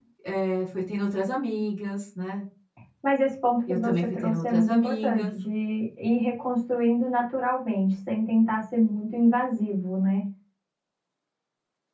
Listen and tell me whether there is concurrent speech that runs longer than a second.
Yes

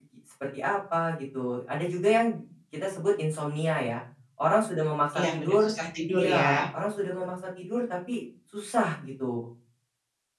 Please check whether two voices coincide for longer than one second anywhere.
No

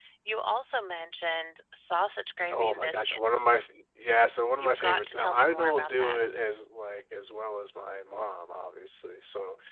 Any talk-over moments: Yes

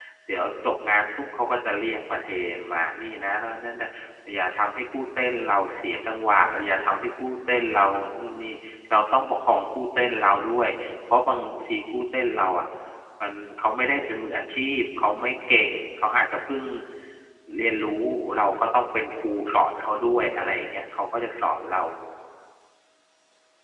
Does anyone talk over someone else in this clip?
No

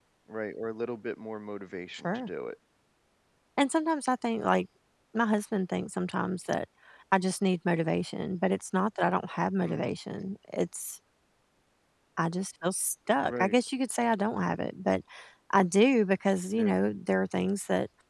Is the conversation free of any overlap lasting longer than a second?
Yes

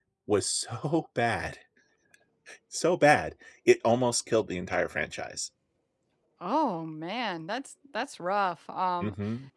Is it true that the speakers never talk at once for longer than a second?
Yes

